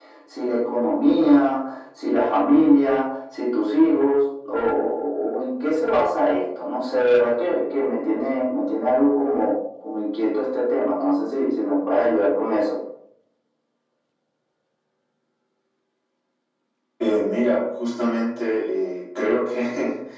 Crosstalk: none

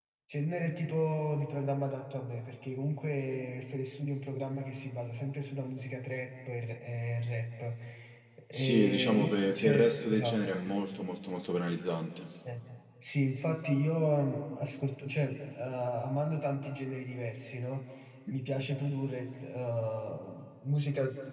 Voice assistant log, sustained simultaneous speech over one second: present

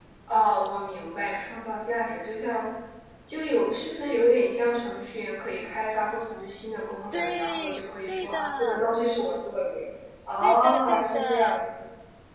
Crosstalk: present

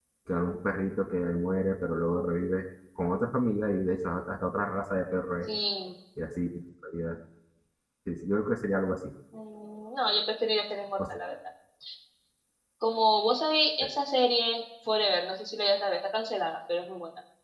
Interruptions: none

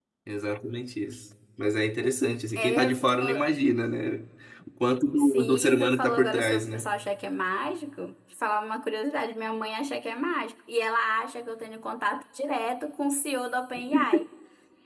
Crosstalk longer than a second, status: present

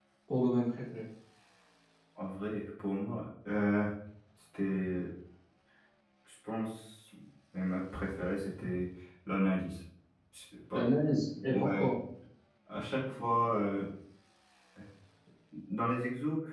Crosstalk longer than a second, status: none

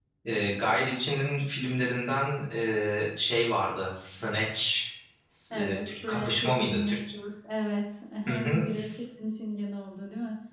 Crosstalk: present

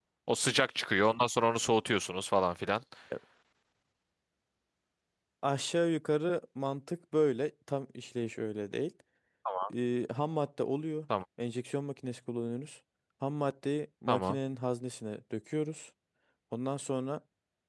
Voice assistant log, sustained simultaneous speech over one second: none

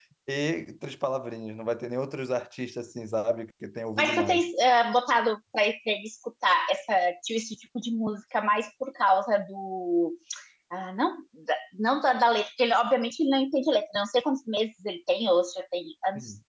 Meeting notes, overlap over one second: none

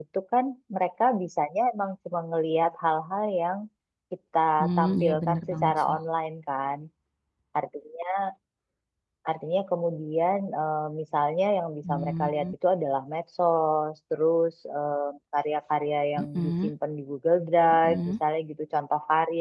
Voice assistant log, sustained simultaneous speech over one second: present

